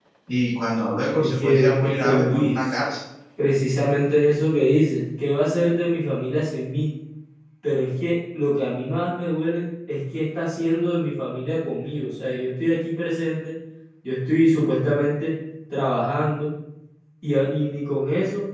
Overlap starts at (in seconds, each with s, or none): 1.2 s